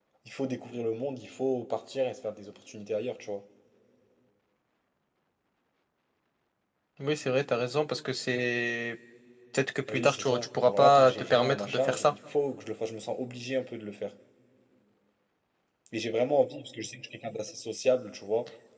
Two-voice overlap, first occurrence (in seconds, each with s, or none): 9.9 s